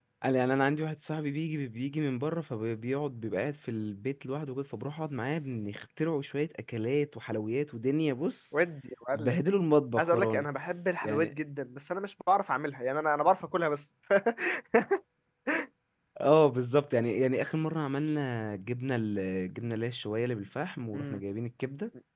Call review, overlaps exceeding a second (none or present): none